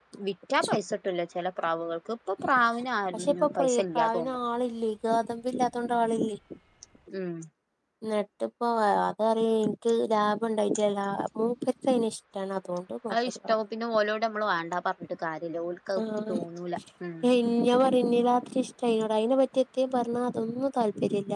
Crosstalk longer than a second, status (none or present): present